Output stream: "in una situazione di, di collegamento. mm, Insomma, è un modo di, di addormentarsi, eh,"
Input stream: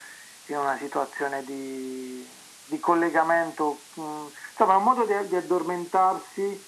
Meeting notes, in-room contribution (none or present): none